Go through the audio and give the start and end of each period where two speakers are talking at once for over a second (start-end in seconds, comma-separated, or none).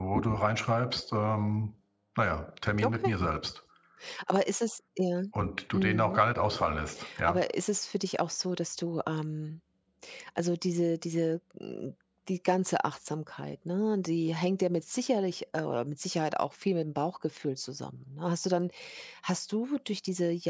none